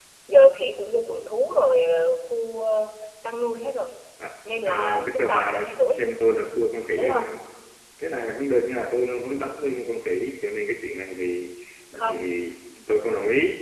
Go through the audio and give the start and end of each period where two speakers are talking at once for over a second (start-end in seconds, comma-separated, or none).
4.7-6.0